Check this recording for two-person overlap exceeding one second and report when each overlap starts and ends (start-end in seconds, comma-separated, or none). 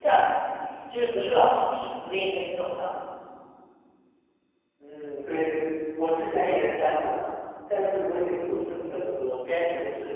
none